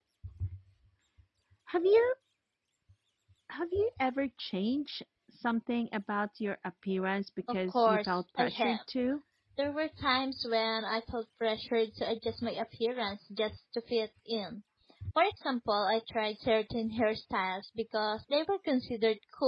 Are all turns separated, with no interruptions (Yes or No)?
No